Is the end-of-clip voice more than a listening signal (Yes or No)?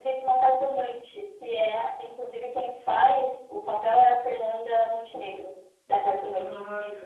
Yes